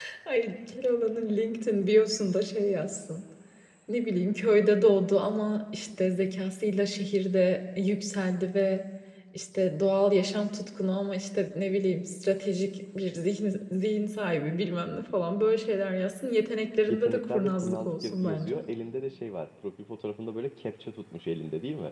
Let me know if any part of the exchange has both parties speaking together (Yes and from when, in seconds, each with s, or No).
Yes, from 16.9 s